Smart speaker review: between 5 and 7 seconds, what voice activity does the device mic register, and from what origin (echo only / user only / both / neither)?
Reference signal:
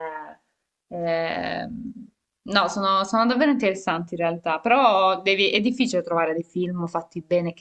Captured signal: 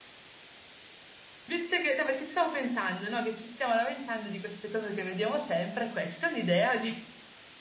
user only